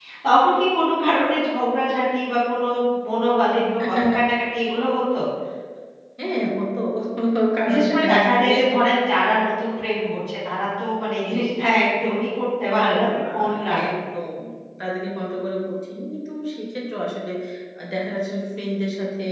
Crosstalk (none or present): present